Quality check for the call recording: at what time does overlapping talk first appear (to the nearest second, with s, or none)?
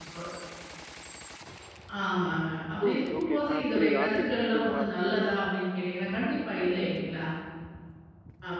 3 s